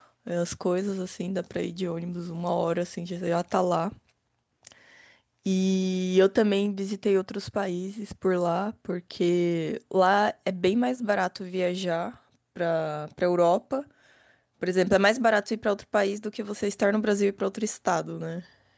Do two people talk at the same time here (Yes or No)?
No